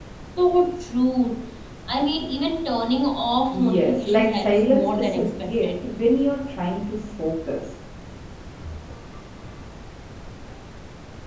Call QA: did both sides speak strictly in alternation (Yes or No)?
No